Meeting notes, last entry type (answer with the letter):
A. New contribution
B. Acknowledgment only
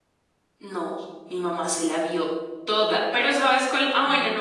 B